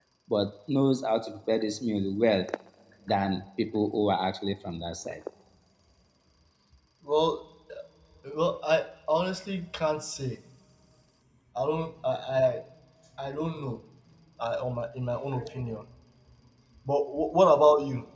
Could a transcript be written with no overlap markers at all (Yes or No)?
Yes